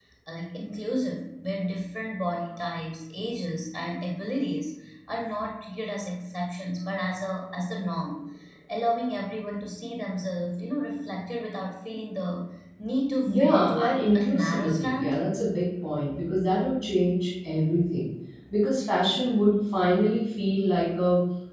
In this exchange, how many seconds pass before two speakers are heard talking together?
13.3 s

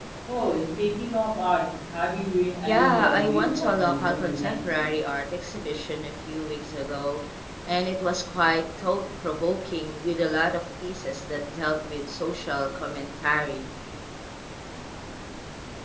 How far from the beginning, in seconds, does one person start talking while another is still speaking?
2.6 s

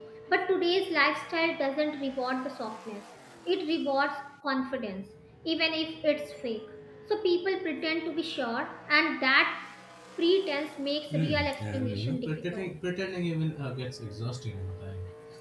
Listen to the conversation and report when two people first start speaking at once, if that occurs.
11.1 s

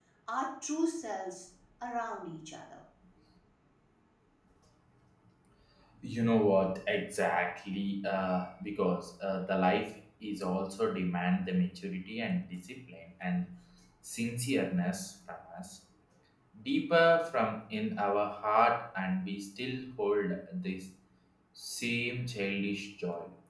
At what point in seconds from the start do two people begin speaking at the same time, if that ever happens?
none

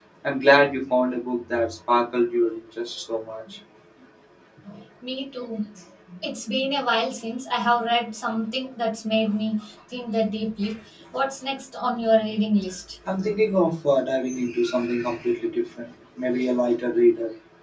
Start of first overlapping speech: none

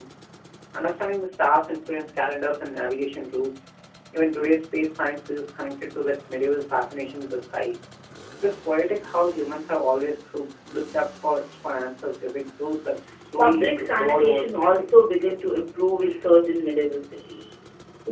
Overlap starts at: 13.4 s

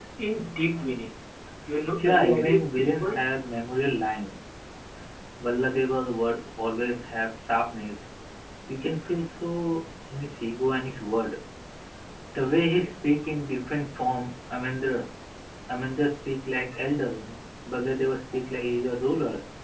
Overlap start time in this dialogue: 2.0 s

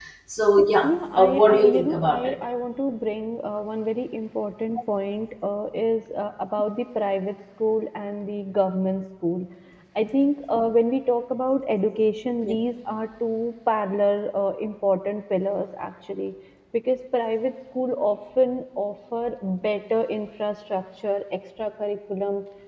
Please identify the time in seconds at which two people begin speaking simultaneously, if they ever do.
0.8 s

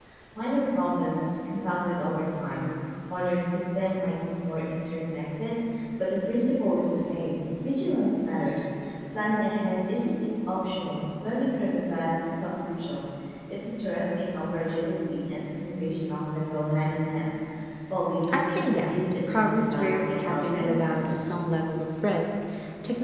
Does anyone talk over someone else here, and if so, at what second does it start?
18.3 s

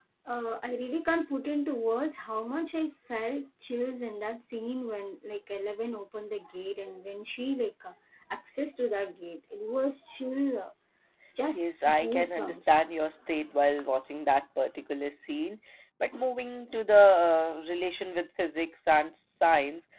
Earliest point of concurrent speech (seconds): 11.5 s

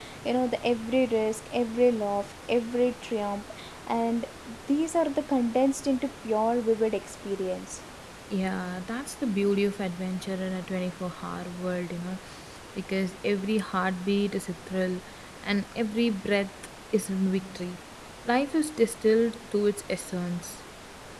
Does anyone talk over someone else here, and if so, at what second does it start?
none

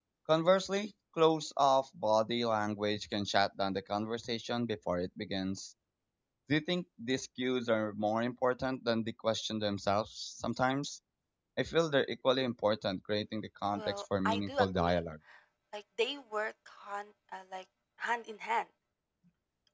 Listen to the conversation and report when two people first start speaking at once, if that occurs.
13.8 s

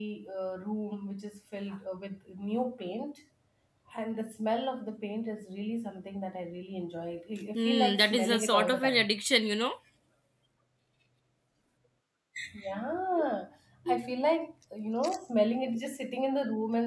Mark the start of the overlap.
7.5 s

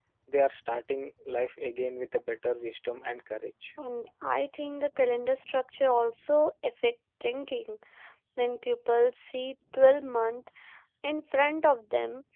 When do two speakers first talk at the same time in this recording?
none

